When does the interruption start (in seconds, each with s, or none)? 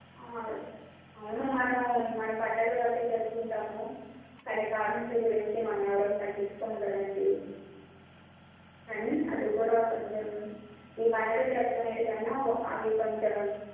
none